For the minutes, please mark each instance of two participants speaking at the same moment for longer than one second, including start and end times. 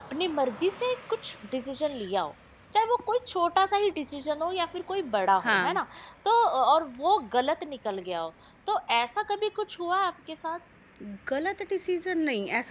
none

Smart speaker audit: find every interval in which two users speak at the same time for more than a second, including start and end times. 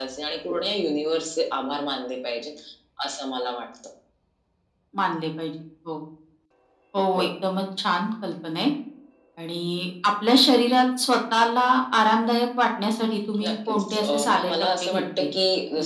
13.5-15.2

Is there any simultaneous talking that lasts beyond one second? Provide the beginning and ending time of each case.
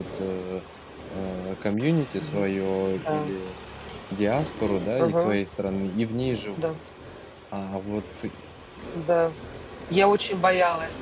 none

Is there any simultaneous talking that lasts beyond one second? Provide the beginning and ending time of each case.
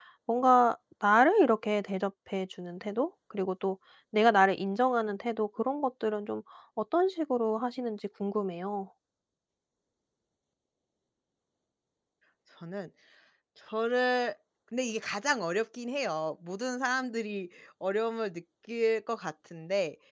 none

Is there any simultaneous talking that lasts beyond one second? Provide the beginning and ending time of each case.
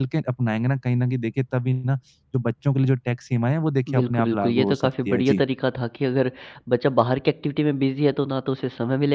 3.9-5.4

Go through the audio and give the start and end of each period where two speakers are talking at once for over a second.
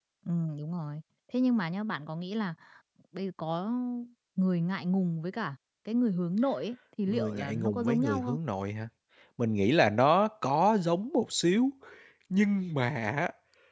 7.1-8.4

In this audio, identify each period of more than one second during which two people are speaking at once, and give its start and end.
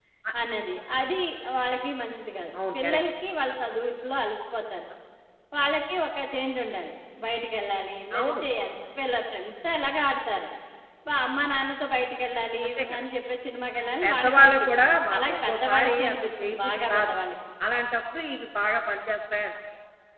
14.0-17.2

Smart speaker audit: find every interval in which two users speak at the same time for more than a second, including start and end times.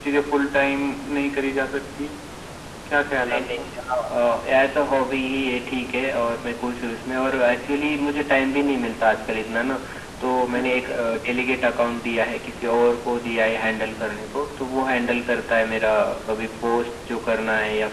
none

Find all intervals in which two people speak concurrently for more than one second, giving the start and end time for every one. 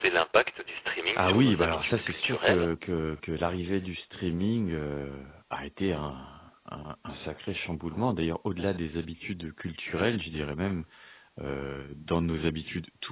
1.2-2.7

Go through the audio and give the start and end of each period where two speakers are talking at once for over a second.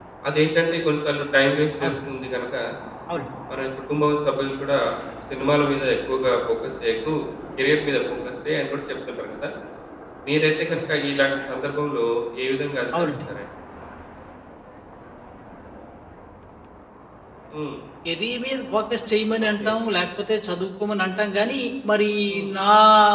none

